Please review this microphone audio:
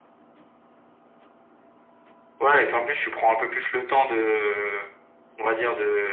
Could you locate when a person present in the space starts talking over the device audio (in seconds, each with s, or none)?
none